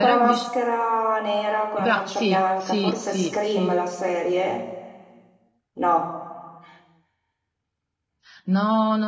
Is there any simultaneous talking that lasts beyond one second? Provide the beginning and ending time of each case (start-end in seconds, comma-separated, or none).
1.8-3.8